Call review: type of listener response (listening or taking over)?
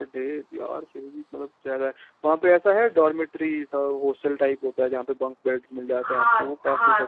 taking over